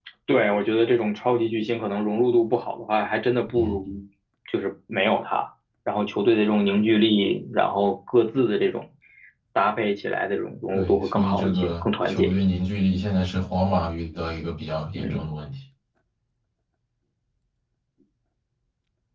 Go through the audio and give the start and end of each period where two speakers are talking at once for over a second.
10.7-12.4

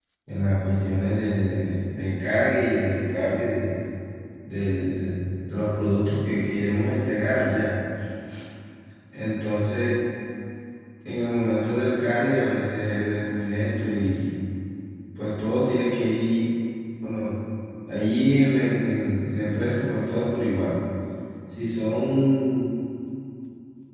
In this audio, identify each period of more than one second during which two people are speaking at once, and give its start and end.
none

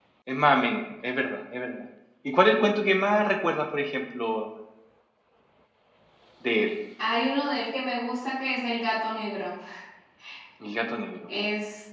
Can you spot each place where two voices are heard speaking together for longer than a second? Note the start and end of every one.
none

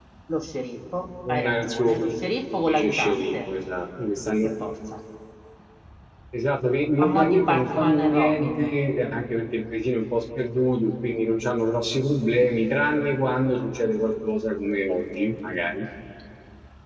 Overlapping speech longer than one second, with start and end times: 1.3-3.3, 7.0-8.6

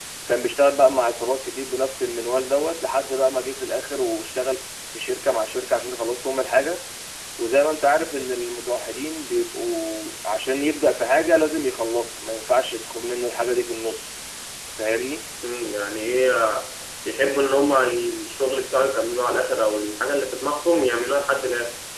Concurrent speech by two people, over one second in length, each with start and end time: none

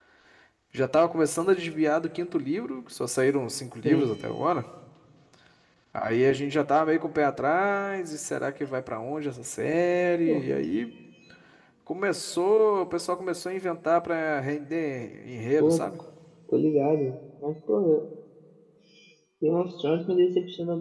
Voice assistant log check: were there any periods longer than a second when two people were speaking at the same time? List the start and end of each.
none

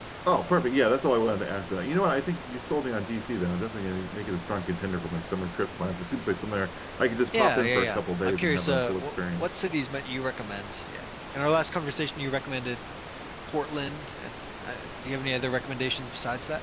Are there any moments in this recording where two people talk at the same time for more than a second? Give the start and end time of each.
7.3-9.5

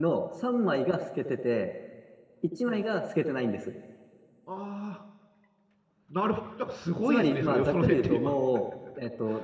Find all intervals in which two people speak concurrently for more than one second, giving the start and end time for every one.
7.1-8.3

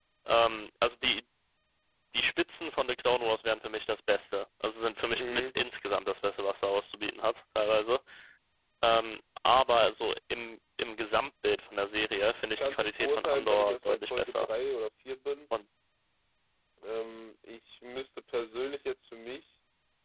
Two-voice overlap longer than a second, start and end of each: 12.6-14.5

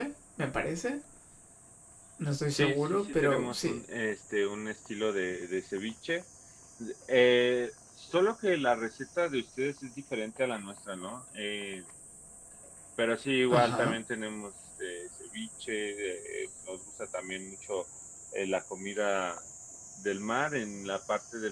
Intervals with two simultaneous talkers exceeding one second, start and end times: 2.5-3.8

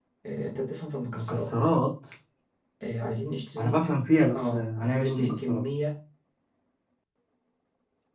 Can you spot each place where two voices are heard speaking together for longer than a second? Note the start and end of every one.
4.3-5.6

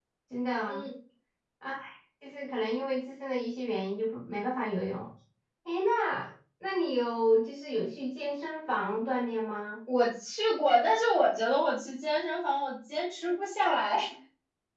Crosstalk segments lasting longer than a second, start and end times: none

